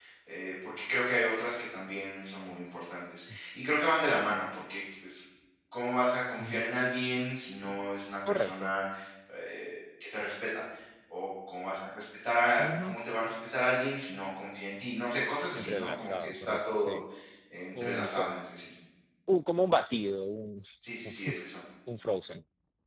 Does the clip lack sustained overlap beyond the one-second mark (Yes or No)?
No